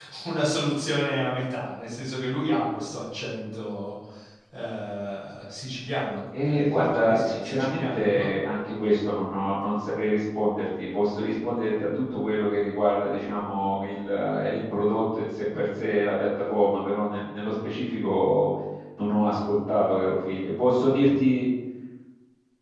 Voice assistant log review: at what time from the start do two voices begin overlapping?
6 s

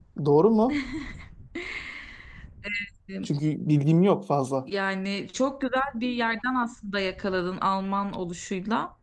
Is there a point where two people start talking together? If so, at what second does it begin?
none

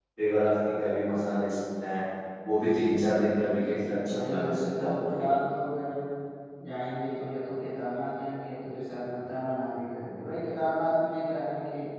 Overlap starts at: 3 s

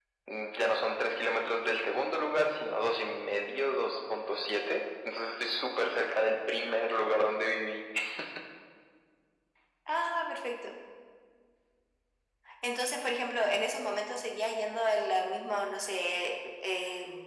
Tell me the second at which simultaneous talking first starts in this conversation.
none

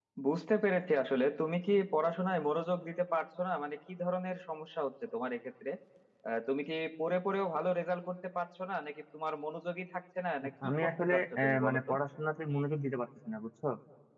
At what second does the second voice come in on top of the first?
10 s

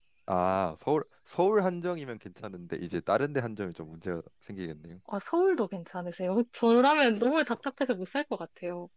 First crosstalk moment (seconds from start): none

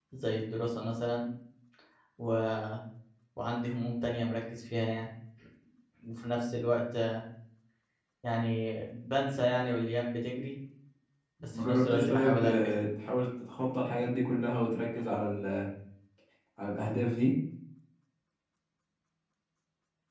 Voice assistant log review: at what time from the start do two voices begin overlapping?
12 s

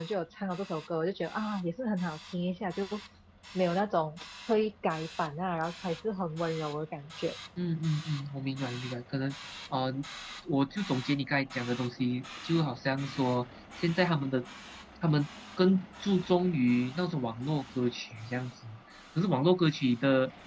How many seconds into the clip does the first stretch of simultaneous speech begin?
none

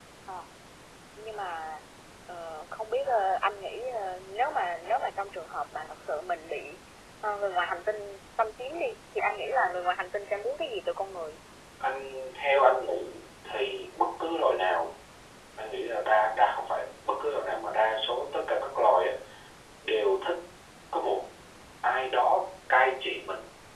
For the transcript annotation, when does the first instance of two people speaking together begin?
none

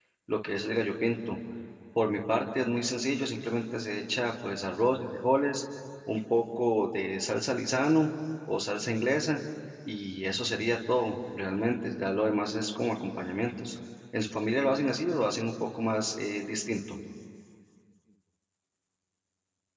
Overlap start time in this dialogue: none

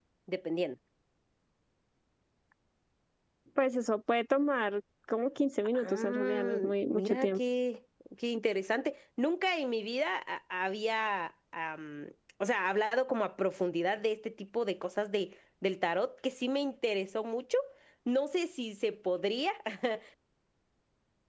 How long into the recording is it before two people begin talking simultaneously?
6 s

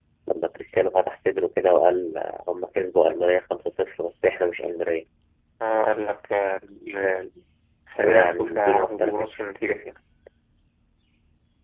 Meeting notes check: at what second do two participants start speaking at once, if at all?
8 s

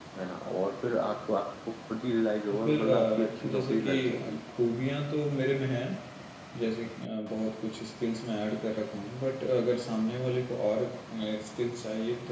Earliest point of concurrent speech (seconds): 3 s

